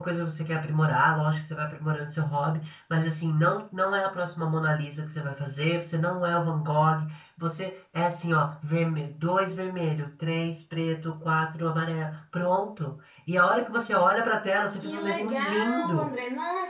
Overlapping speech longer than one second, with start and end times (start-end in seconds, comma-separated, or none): 14.8-16.1